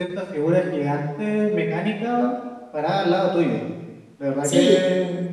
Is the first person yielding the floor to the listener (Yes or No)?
No